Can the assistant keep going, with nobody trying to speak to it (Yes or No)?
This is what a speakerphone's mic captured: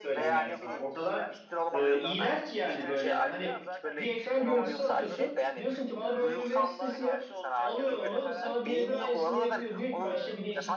No